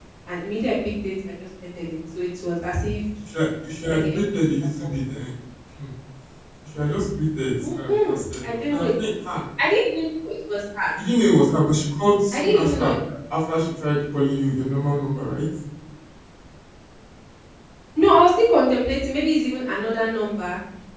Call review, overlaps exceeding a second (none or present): present